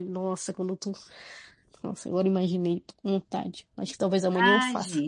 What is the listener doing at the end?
taking over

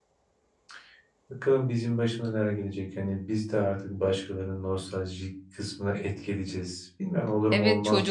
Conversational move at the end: taking over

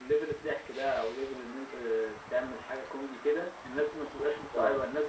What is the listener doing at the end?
listening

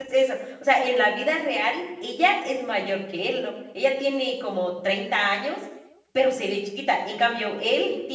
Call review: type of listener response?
listening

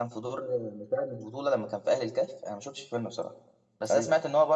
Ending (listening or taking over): listening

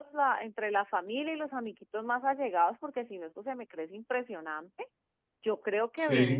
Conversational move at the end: listening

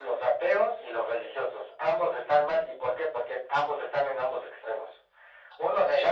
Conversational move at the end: listening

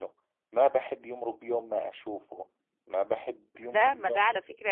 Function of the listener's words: taking over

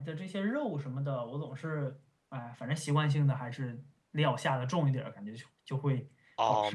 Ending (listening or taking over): taking over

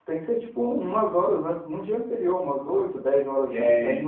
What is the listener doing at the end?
listening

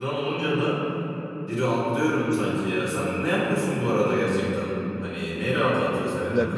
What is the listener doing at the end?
taking over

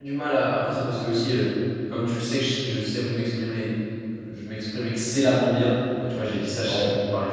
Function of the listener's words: listening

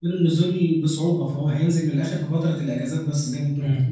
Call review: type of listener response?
taking over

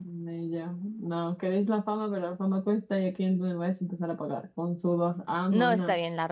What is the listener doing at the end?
taking over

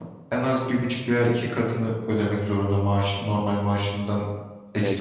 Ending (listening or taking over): taking over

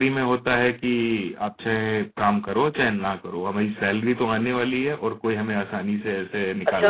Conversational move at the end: taking over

